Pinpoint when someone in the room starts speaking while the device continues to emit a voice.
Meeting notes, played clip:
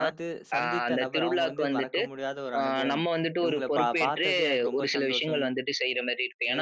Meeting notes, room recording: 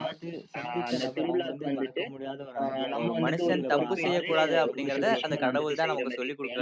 3.0 s

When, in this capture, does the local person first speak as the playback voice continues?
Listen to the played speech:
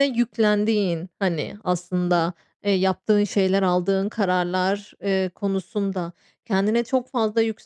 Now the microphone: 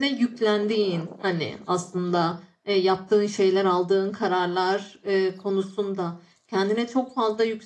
none

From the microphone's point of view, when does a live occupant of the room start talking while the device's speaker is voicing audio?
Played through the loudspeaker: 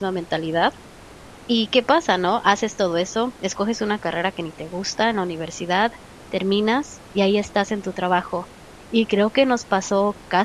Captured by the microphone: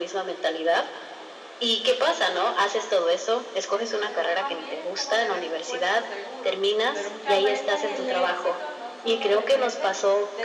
3.7 s

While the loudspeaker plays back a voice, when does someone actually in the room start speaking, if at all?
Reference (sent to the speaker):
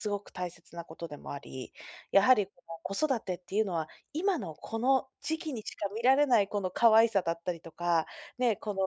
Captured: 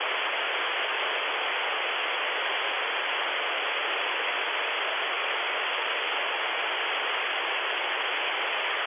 none

